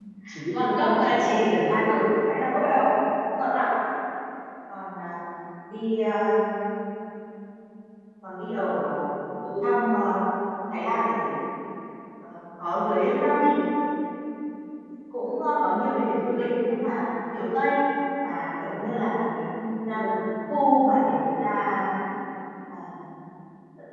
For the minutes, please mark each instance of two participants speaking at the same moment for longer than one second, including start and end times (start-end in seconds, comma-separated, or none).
0.5-2.0